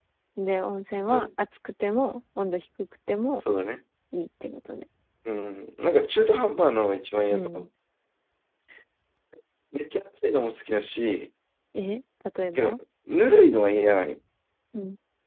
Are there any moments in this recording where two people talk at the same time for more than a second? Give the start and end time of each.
none

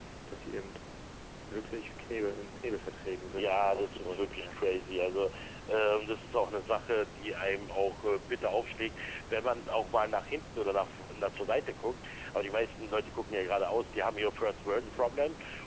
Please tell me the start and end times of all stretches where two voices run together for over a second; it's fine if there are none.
3.4-4.9

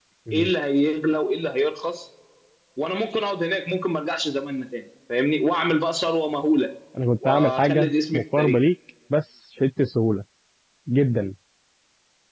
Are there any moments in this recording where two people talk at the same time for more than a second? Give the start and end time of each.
7.2-8.6

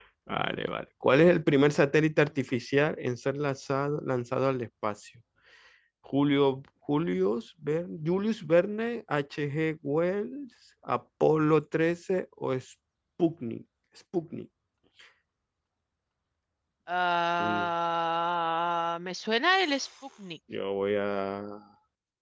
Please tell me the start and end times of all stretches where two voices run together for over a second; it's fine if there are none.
none

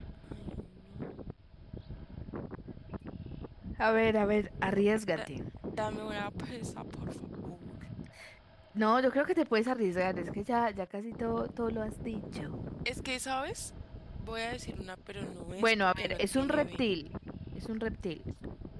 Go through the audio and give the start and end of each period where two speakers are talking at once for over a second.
15.6-16.9

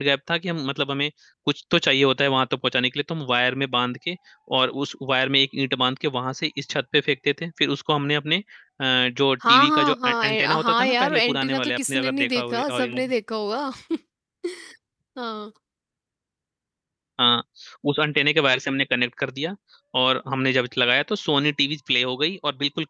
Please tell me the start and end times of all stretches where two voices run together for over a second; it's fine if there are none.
9.5-13.0

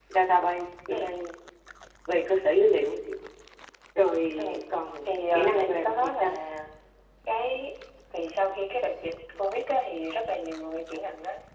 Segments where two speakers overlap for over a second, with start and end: 5.0-6.3

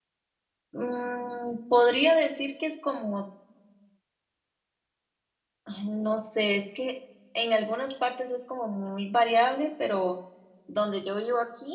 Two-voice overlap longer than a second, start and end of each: none

